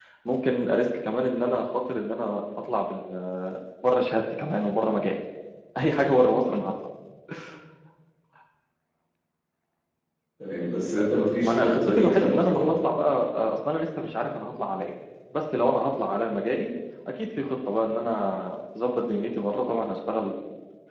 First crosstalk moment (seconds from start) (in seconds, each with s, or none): 11.4 s